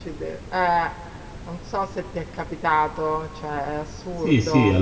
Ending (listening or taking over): taking over